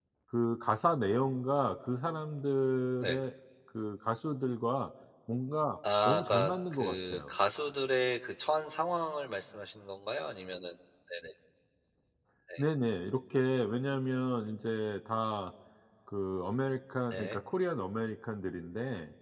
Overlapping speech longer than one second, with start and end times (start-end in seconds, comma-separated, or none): 6.0-7.3